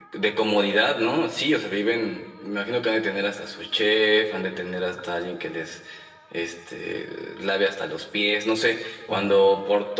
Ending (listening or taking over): listening